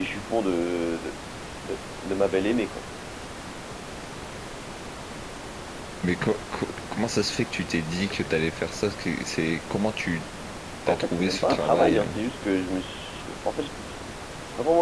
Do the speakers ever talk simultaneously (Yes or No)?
Yes